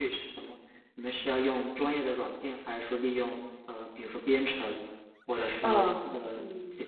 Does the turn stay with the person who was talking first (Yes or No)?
No